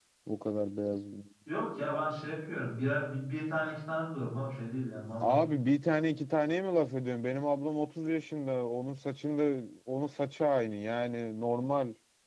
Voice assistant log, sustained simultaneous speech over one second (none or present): none